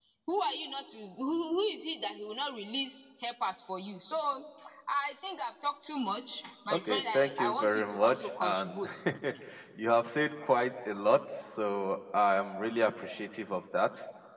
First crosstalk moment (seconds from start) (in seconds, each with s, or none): 6.7 s